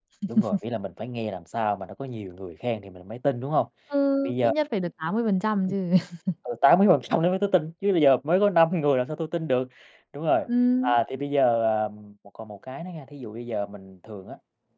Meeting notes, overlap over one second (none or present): none